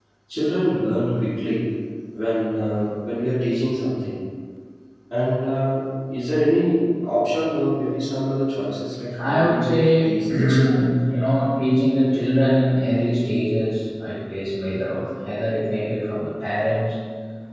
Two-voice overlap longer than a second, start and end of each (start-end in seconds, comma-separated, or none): 9.2-10.9